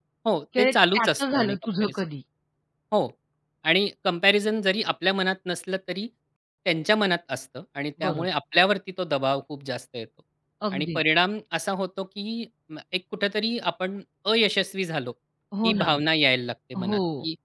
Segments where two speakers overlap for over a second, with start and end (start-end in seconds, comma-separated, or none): 0.6-1.9